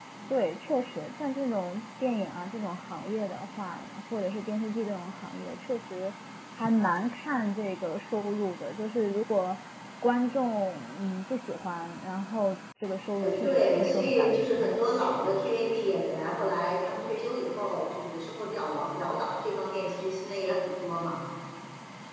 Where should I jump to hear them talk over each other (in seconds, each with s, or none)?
13.2 s